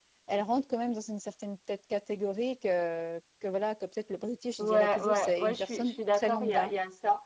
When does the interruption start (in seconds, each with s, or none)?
4.6 s